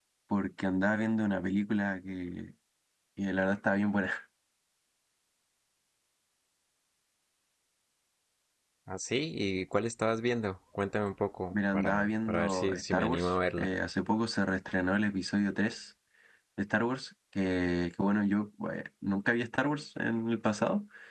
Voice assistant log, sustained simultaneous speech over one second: present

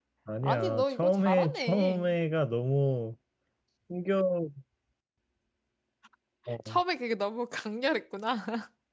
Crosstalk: present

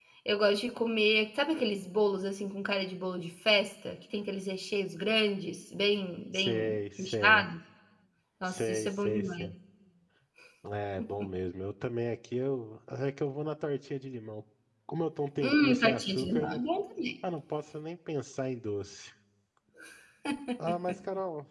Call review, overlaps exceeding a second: present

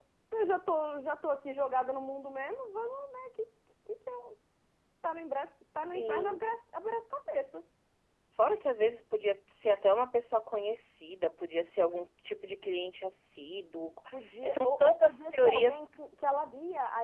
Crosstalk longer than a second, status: present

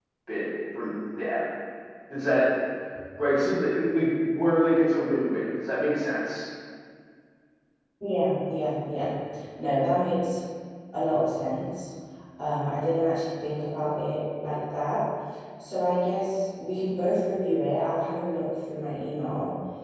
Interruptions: none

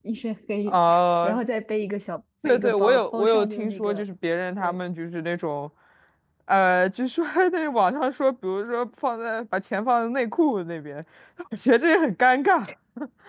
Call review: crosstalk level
present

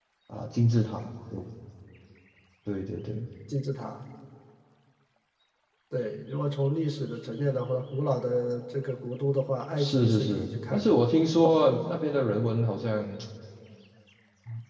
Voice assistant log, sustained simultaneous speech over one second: present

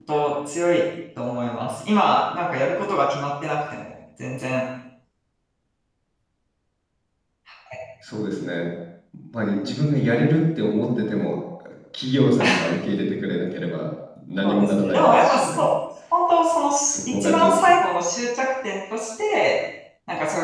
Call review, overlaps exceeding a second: present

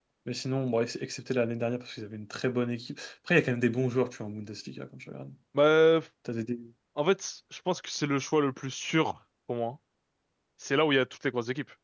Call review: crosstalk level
none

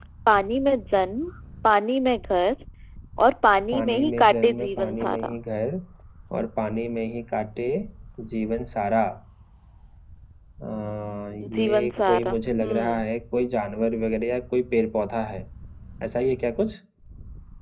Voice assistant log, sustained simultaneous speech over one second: present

